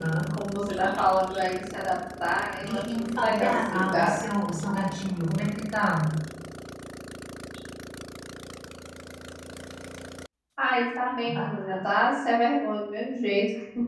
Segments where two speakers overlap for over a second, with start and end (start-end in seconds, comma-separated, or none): 2.7-4.1